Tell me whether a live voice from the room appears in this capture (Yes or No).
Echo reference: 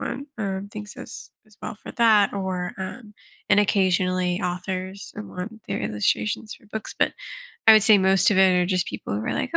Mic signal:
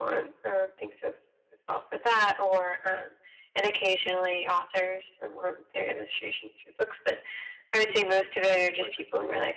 Yes